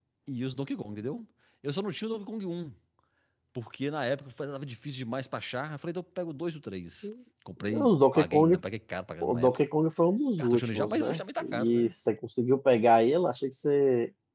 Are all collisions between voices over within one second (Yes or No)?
No